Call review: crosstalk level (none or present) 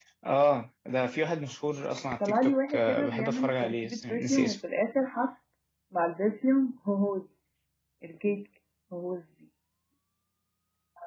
present